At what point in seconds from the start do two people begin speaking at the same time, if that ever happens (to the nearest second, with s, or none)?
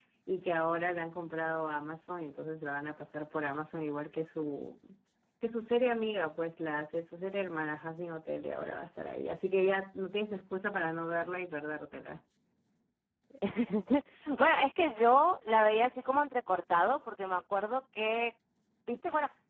none